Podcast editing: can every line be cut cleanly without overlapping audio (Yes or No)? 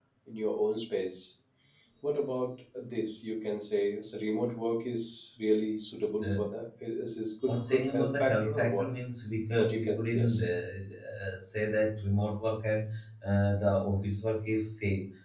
No